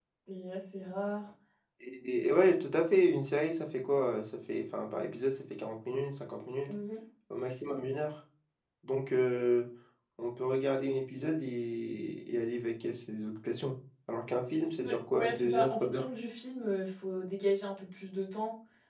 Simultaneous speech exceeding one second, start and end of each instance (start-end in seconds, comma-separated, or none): 14.8-16.1